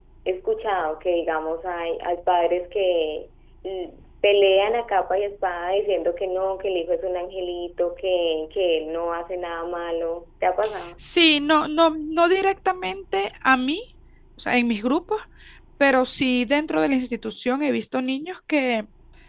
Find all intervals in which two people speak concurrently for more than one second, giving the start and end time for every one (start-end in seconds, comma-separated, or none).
none